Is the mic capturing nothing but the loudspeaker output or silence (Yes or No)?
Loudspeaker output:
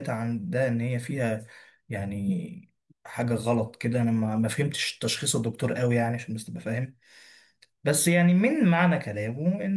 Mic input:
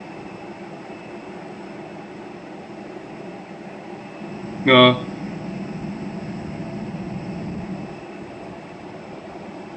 No